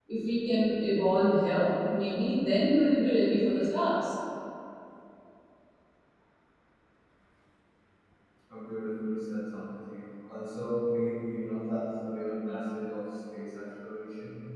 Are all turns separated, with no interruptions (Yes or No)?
Yes